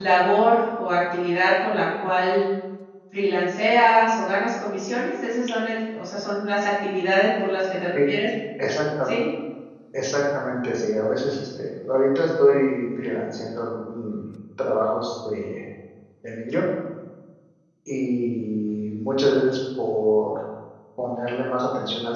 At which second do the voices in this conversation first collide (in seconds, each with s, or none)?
none